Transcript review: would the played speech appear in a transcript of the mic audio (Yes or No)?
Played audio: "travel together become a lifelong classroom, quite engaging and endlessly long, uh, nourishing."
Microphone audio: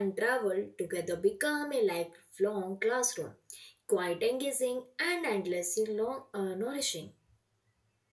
Yes